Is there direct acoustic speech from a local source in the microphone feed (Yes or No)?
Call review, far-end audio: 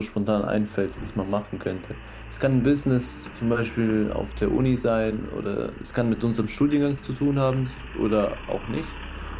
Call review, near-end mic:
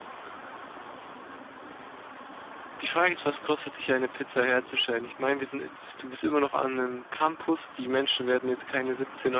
Yes